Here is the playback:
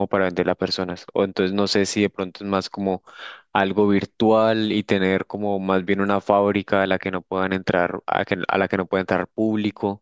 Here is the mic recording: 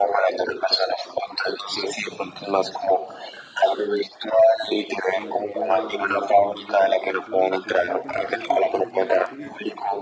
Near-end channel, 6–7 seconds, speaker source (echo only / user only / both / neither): both